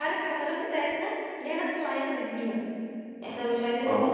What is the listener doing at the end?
listening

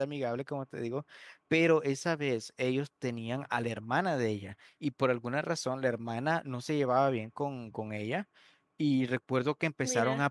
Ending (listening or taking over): listening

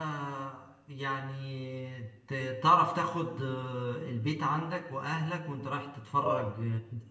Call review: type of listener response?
listening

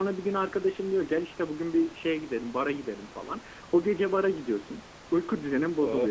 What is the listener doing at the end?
listening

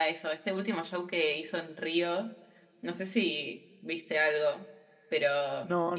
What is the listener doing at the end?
taking over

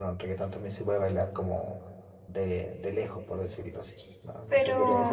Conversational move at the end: taking over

